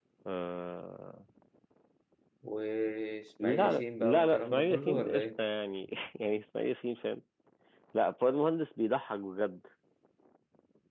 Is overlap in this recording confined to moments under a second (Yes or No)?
No